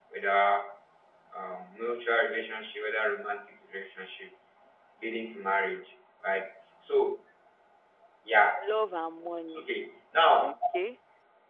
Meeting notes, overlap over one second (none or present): none